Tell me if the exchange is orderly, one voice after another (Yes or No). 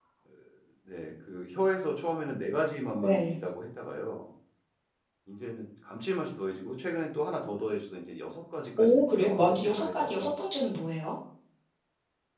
No